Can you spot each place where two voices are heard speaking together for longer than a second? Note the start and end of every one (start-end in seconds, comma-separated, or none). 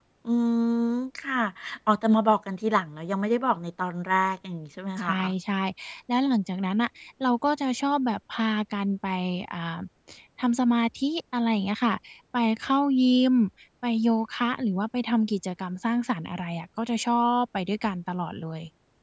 none